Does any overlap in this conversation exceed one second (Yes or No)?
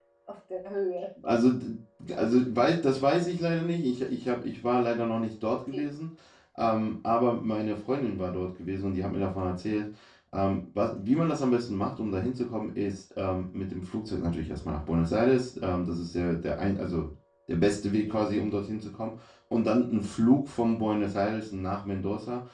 No